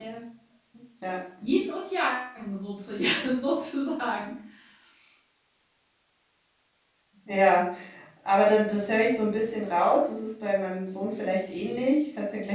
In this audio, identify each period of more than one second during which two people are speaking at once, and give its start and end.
none

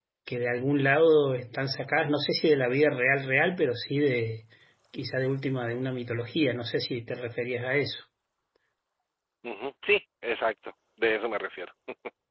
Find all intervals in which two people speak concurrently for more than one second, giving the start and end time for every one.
none

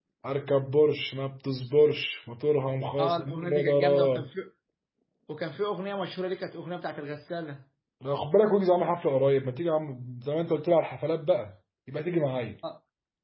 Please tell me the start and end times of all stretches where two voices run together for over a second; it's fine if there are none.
3.0-4.3

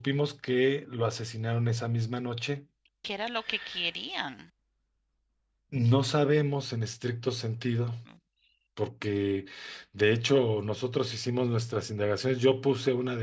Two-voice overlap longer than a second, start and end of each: none

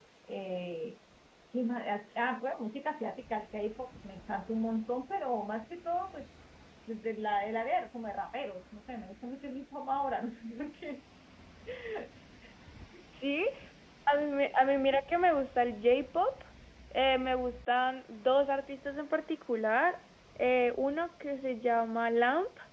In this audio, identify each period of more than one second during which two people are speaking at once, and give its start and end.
none

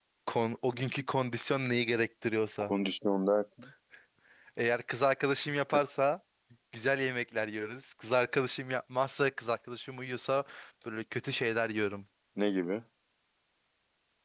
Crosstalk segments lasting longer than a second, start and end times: none

